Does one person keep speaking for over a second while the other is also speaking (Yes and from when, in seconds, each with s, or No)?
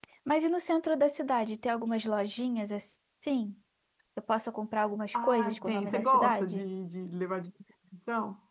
Yes, from 5.1 s